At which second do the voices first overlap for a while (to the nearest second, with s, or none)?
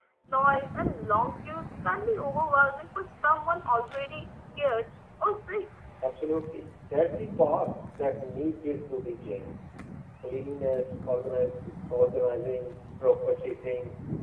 none